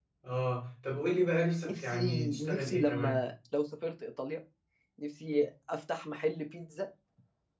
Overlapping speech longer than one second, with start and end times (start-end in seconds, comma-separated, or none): 1.6-3.2